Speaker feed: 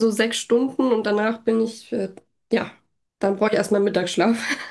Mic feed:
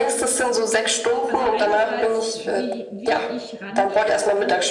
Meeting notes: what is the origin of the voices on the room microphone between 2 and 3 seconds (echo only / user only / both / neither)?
both